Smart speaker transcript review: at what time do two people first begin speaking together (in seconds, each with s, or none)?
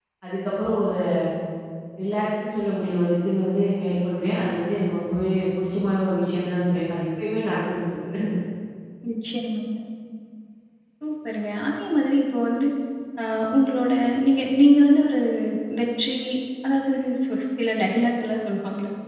none